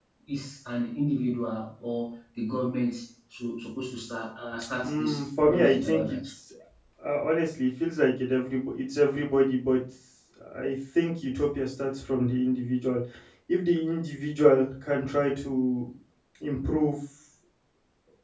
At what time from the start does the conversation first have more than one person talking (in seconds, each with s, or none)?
4.8 s